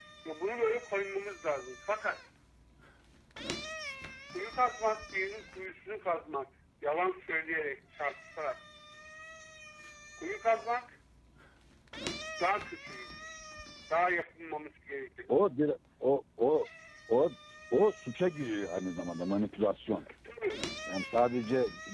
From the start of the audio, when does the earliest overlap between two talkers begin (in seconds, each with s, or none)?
none